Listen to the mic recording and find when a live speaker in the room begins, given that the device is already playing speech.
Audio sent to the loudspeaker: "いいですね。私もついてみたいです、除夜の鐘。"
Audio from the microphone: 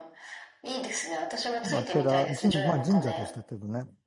1.6 s

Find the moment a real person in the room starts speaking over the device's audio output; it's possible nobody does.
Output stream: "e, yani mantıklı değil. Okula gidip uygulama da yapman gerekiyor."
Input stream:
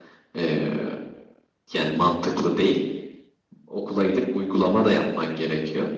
none

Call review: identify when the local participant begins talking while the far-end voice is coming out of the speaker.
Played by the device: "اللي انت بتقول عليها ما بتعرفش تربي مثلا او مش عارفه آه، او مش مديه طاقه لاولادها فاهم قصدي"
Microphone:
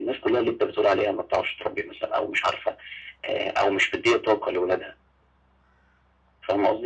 none

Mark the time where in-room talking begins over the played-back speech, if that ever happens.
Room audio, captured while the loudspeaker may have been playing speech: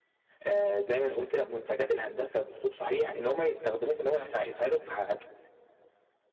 0.4 s

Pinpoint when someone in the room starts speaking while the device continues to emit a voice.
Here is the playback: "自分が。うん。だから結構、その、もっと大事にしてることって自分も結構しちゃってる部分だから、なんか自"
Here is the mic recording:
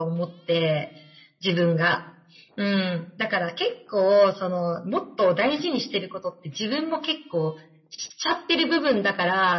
none

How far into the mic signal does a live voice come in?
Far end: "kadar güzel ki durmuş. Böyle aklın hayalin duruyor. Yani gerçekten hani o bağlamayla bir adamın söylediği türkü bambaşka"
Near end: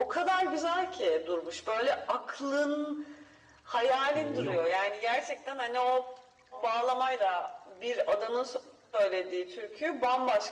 4.1 s

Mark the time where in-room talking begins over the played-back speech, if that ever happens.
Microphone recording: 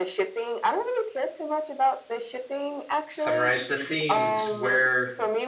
3.2 s

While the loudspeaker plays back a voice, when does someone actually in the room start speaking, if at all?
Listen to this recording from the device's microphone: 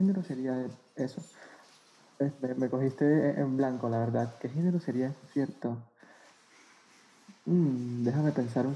none

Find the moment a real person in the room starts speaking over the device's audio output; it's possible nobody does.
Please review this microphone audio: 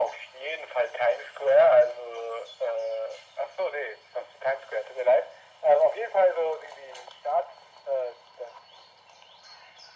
none

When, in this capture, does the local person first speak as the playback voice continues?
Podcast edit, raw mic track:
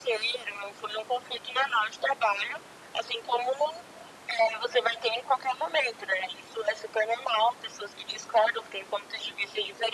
none

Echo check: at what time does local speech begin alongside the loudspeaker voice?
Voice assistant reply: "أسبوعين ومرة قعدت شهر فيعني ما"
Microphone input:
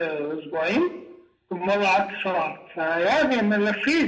none

